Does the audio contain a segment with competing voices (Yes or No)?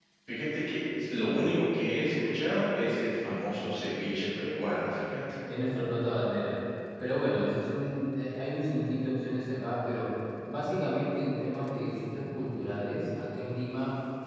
No